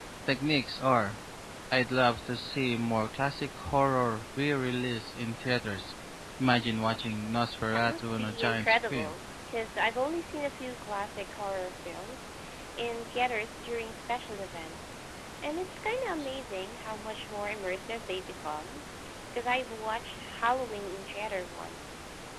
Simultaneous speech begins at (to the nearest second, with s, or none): 8 s